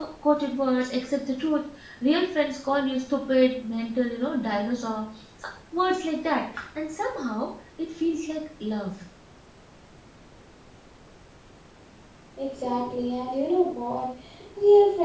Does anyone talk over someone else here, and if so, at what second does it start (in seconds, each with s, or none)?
none